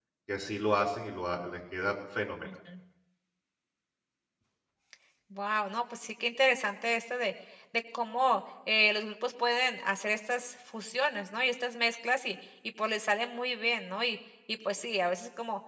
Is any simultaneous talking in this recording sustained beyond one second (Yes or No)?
No